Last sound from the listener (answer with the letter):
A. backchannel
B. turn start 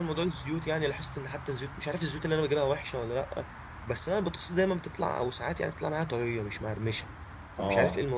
B